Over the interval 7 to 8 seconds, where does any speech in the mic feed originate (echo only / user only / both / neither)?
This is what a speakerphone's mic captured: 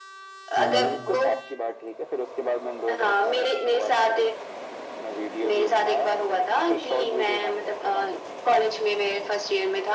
echo only